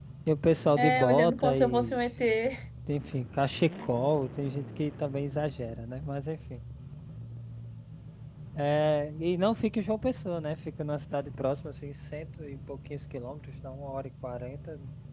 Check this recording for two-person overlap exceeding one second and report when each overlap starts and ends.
0.8-2.0

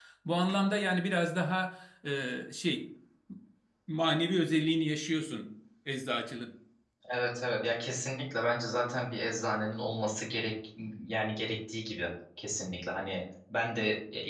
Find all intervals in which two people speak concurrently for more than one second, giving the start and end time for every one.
none

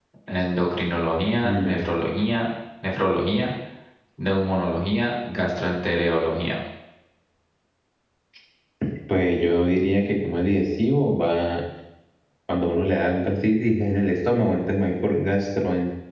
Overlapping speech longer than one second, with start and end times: none

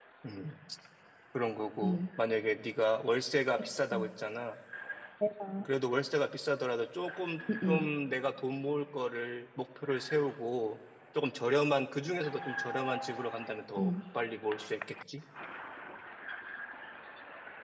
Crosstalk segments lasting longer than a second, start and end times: none

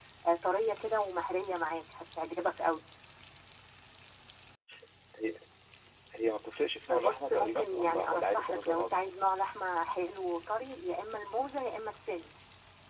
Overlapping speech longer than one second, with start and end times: 6.9-8.9

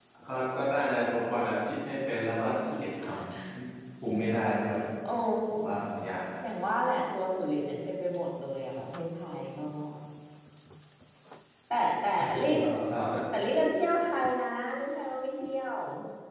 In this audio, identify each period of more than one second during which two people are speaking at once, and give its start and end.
none

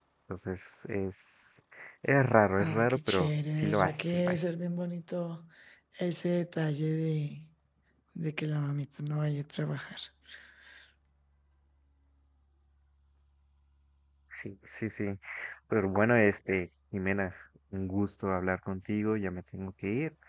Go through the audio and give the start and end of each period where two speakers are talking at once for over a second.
2.6-4.4

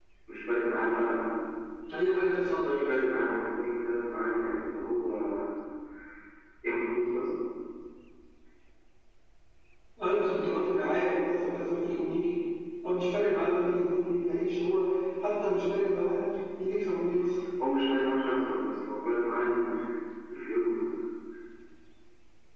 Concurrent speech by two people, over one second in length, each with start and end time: none

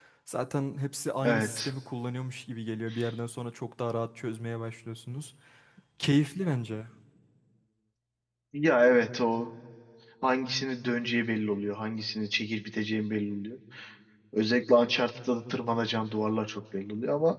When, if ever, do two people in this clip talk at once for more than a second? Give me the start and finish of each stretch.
none

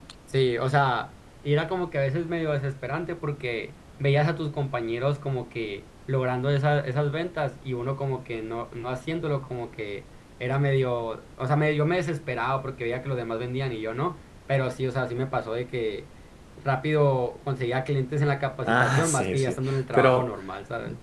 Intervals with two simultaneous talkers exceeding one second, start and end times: 18.6-20.3

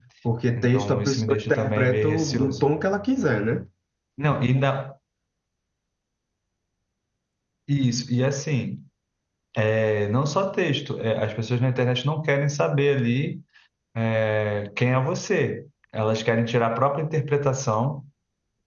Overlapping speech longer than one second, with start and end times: 0.6-2.6

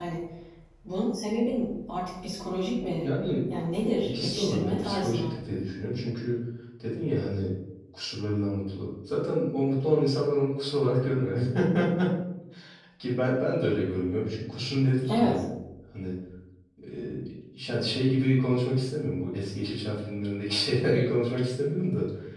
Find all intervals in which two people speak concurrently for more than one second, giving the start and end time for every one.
4.0-5.3

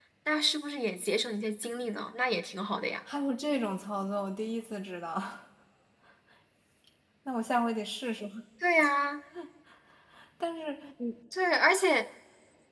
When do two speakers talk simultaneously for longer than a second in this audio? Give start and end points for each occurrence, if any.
none

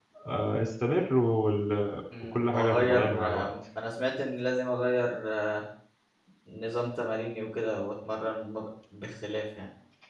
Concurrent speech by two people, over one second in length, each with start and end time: 2.2-3.5

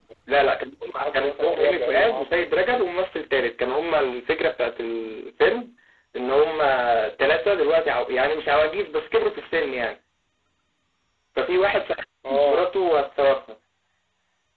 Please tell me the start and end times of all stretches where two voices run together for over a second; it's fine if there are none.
1.1-2.9

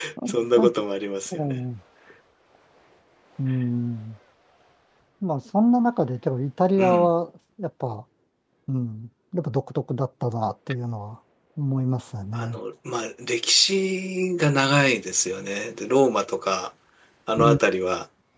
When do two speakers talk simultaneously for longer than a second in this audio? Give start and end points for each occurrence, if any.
none

